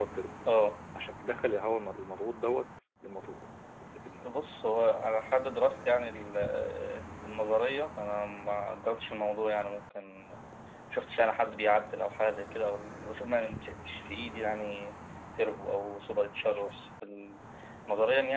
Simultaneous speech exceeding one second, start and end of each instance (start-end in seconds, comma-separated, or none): none